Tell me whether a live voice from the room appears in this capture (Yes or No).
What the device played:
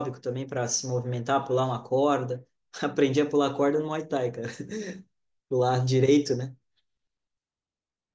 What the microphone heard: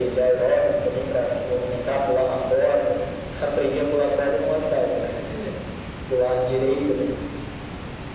No